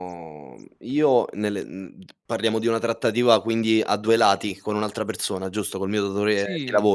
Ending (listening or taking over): taking over